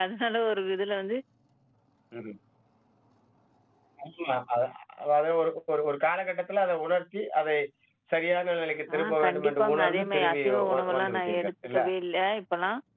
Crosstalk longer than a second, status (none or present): present